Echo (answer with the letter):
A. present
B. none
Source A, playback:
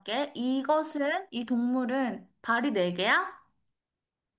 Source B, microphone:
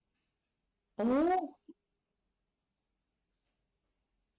B